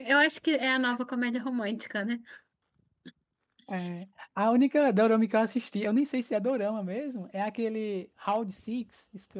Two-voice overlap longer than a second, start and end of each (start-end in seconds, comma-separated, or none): none